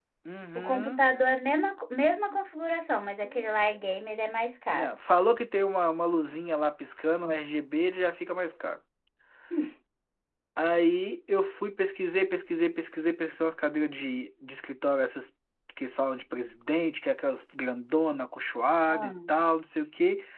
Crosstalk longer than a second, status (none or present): none